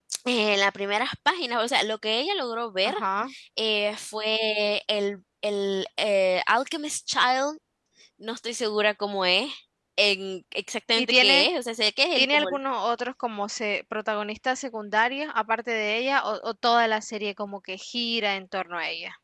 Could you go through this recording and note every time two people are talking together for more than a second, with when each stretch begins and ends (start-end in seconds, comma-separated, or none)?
none